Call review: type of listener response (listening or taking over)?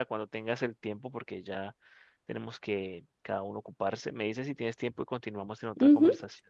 taking over